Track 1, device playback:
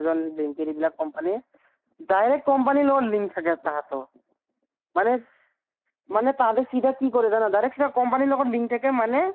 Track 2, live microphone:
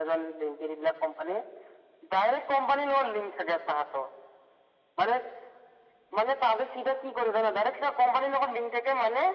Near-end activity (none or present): none